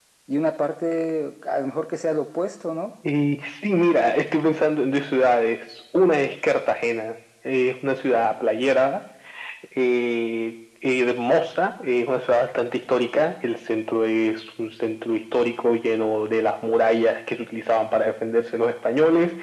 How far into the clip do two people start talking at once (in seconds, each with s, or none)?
none